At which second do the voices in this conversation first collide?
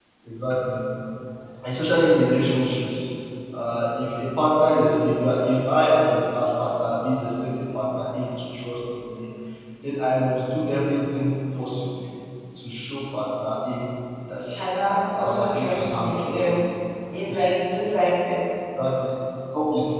15.2 s

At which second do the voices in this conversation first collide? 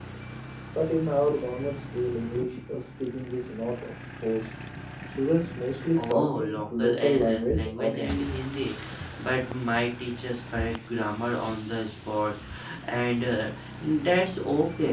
6.1 s

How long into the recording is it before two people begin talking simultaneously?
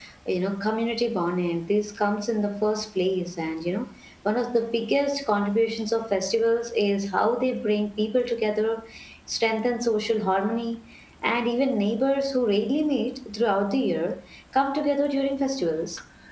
none

